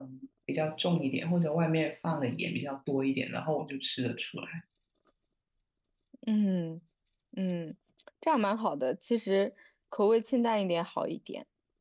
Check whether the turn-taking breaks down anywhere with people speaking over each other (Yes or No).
No